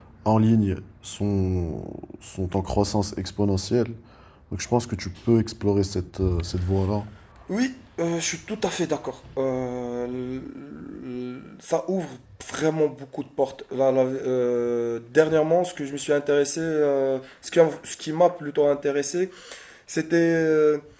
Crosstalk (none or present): none